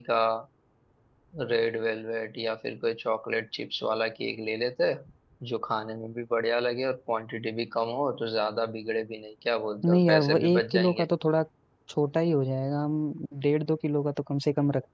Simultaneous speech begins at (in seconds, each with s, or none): 9.8 s